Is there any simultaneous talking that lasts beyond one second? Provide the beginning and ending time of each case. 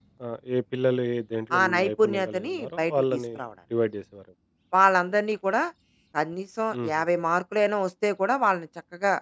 1.6-3.2

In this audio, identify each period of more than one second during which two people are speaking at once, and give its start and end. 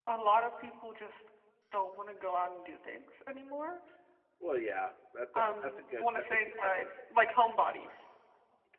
5.3-6.9

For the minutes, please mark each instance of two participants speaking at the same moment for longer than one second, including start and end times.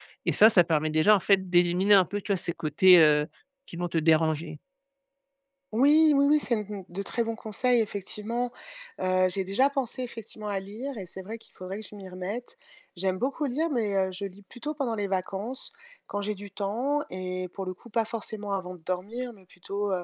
none

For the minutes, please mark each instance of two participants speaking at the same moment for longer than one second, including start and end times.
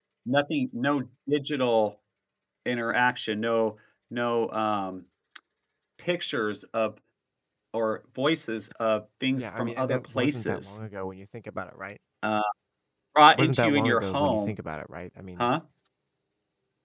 9.3-10.8, 13.3-14.5

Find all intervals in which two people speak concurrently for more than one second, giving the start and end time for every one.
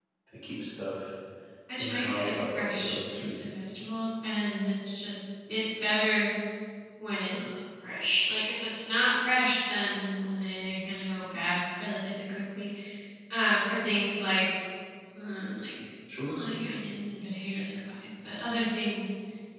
1.8-3.4

